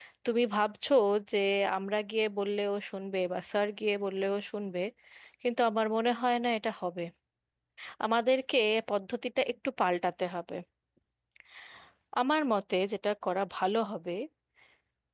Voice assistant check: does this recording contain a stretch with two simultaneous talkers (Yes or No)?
No